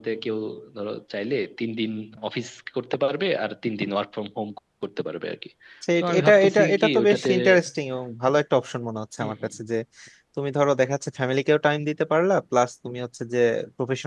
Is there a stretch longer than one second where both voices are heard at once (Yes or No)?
Yes